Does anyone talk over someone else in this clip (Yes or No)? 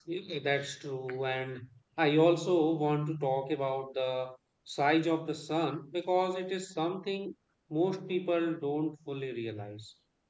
No